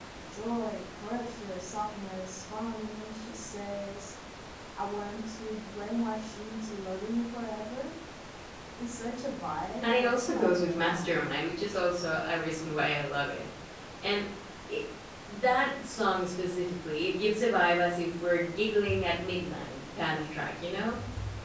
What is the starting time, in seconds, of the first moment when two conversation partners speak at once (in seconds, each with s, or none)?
9.8 s